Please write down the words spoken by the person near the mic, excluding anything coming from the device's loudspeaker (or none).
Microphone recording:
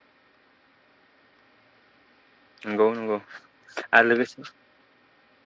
नंगौ नंगौ आरो लोगोसे